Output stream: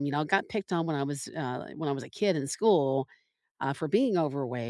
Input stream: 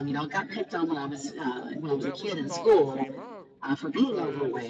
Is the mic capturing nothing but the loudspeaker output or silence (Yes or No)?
No